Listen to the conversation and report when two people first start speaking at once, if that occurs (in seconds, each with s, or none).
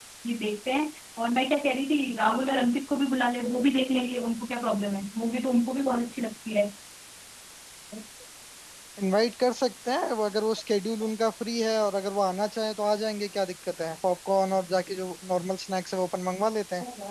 none